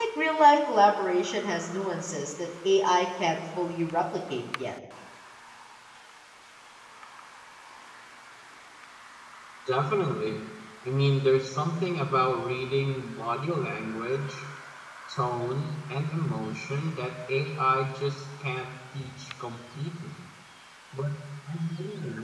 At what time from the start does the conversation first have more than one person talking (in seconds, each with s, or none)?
none